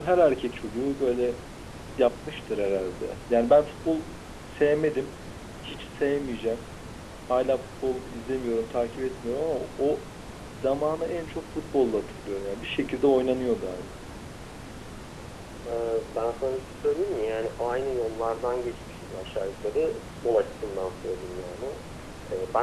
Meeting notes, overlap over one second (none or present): none